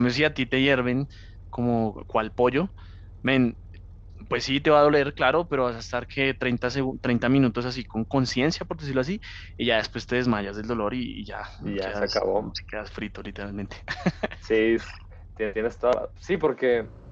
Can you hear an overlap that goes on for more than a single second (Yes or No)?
No